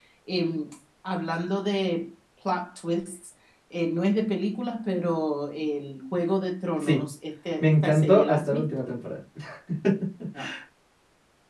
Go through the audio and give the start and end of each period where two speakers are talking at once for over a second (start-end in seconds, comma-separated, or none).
7.6-8.9